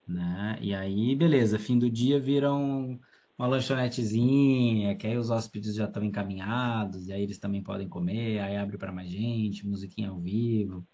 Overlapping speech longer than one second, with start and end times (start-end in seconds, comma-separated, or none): none